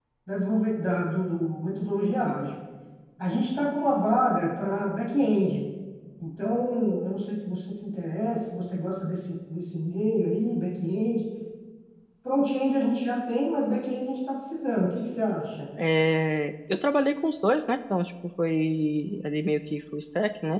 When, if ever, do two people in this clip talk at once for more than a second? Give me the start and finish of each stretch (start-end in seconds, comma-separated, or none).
none